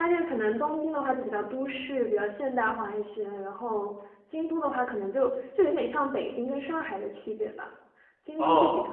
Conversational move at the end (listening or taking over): listening